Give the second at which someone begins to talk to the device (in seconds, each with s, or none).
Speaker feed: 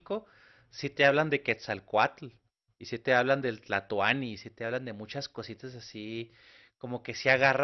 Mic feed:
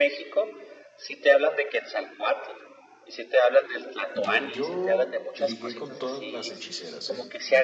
4.1 s